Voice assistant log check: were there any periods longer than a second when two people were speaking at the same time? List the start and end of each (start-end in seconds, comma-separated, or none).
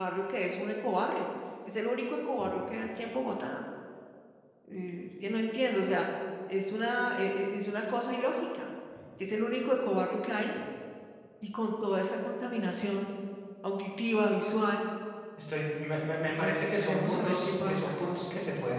16.4-17.9